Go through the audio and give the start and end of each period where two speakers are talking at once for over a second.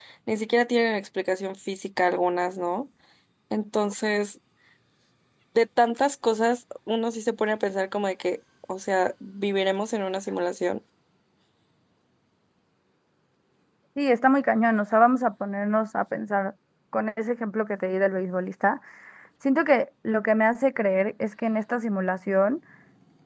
none

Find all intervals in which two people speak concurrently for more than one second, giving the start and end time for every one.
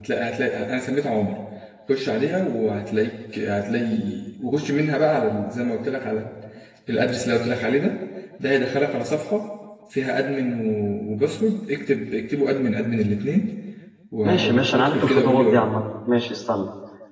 14.2-15.7

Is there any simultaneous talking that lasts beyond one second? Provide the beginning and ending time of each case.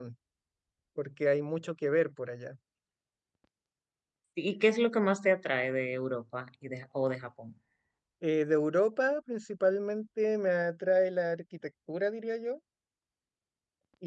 none

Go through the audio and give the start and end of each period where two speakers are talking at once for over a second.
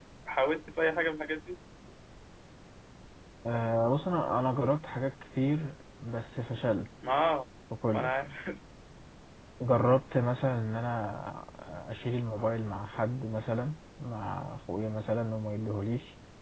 none

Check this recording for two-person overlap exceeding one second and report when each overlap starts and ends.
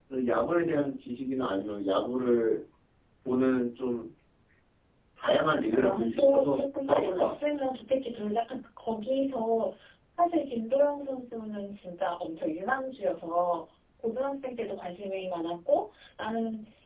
5.6-7.4

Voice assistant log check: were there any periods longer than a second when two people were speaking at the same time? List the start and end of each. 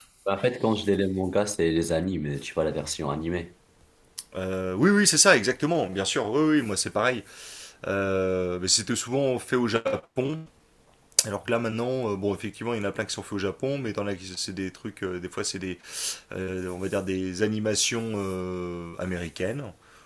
none

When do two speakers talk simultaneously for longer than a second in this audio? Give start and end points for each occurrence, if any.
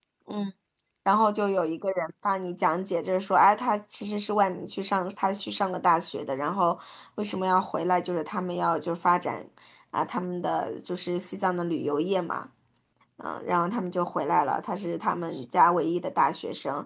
none

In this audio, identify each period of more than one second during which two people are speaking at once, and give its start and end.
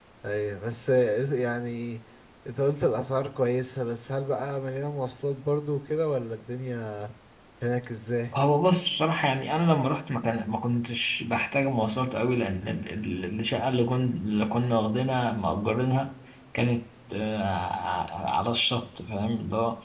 none

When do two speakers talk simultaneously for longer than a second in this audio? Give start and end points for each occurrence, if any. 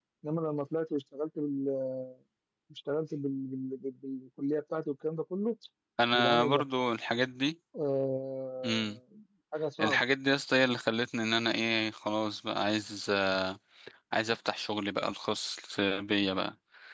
none

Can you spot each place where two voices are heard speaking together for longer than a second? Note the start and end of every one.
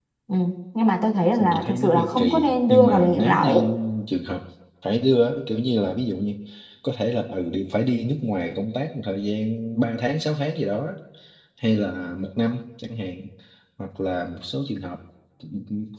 1.4-3.5

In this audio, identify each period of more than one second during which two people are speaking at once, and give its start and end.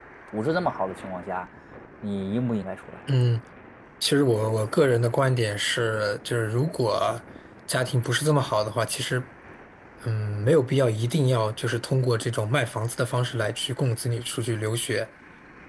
none

